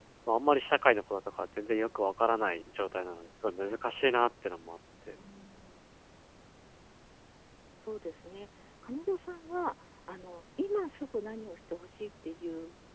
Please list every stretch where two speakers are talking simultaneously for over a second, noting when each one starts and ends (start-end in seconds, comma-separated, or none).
none